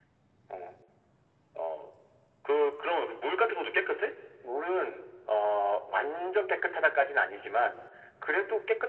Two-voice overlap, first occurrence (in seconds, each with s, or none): none